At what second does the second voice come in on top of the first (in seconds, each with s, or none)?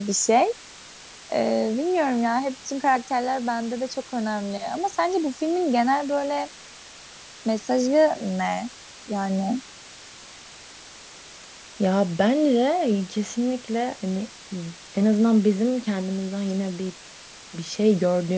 none